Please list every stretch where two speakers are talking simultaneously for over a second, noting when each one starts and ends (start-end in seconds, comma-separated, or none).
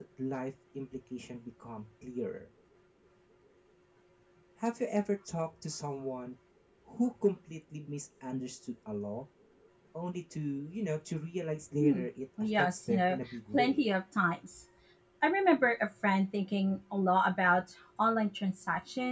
12.4-13.8